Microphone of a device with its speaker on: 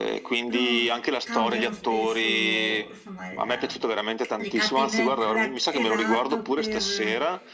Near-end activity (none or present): present